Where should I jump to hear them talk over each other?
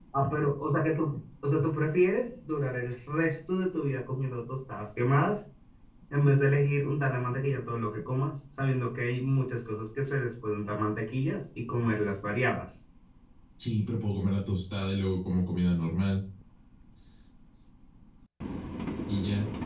none

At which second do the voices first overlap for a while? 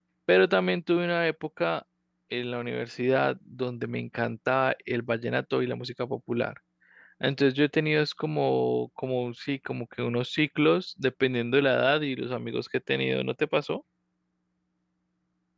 none

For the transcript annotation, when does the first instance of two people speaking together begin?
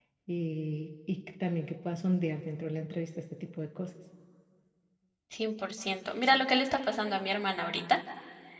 none

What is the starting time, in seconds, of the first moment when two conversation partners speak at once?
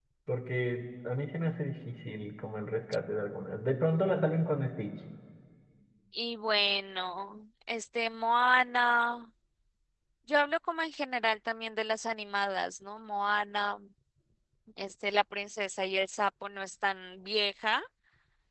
none

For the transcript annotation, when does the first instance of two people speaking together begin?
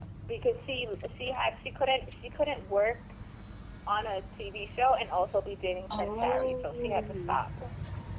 5.9 s

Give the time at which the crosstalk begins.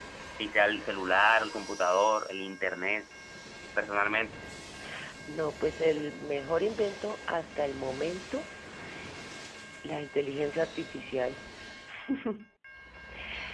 none

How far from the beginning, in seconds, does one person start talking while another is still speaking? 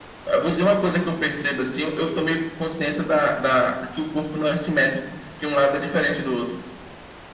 none

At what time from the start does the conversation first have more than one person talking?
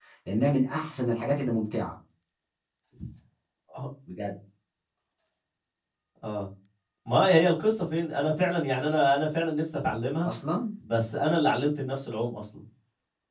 none

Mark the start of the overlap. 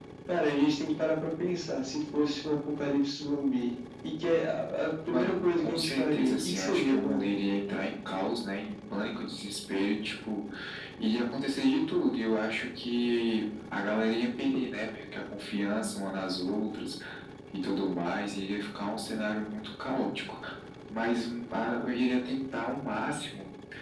5.1 s

